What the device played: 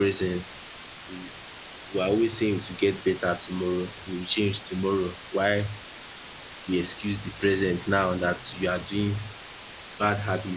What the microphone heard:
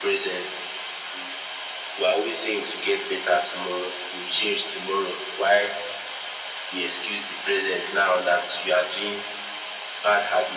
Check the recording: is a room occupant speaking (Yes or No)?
No